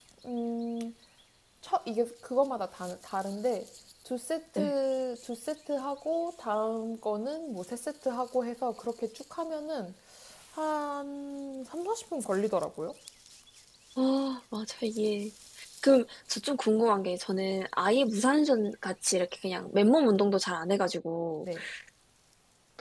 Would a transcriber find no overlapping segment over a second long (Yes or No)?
Yes